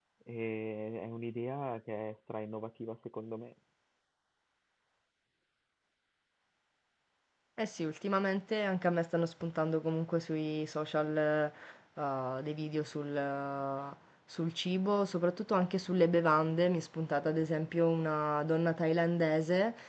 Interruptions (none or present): none